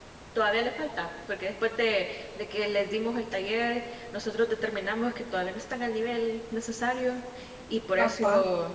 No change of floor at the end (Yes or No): Yes